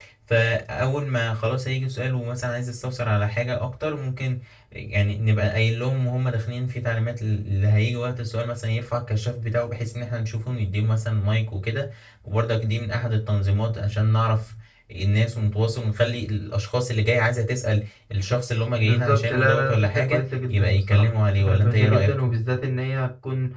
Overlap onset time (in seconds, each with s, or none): 18.8 s